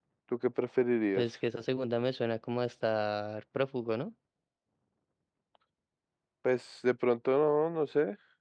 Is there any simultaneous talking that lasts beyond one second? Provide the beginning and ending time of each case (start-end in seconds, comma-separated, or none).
none